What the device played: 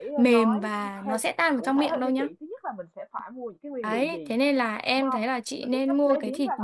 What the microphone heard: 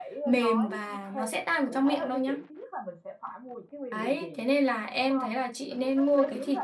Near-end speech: none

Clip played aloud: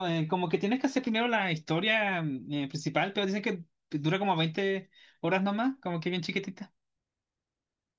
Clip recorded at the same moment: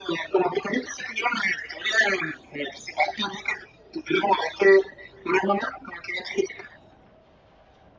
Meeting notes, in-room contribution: none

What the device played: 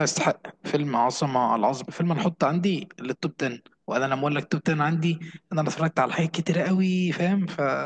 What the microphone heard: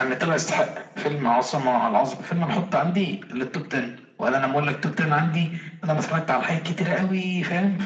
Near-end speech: none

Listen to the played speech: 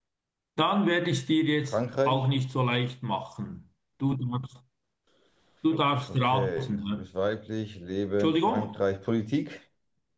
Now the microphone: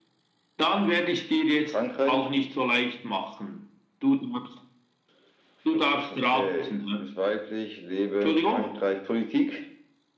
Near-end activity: none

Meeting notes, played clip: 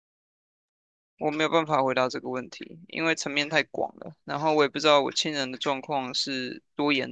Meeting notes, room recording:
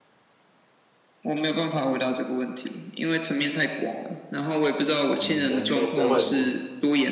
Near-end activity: present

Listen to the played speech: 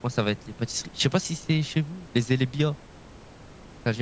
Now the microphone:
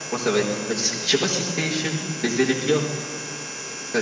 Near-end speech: none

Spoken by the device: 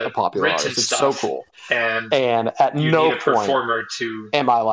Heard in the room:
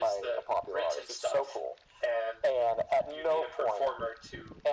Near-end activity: none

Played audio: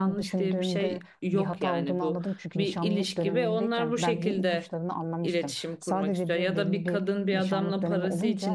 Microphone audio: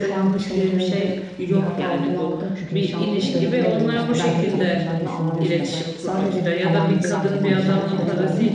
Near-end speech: present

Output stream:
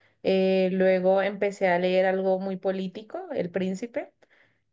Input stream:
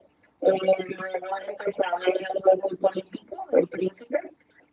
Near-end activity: none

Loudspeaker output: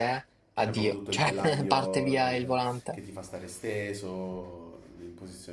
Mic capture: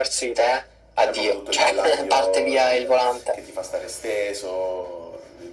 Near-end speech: none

